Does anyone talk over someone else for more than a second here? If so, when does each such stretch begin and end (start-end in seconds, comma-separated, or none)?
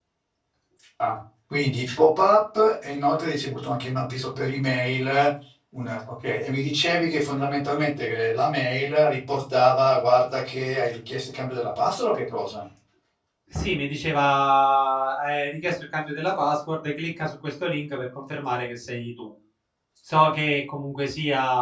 none